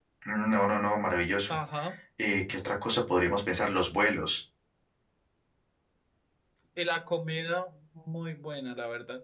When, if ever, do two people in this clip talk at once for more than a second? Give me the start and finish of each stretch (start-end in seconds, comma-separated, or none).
none